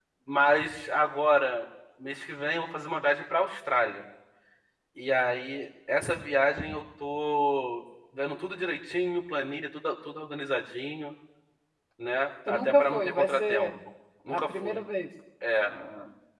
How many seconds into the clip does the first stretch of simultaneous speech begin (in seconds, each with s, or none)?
12.5 s